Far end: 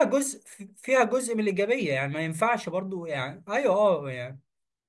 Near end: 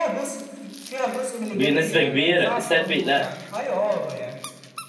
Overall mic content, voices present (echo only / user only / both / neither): both